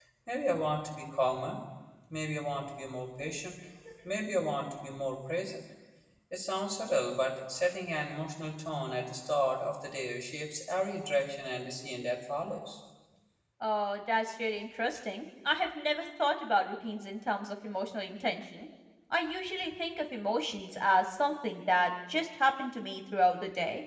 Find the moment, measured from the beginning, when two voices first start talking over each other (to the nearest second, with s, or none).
none